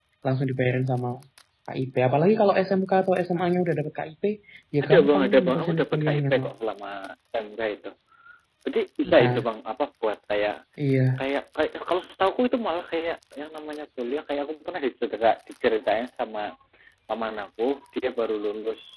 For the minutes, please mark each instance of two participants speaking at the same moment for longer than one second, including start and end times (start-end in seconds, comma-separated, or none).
4.8-6.5